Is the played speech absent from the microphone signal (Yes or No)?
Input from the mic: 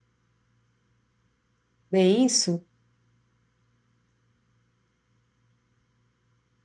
Yes